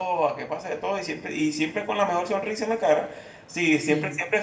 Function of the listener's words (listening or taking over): listening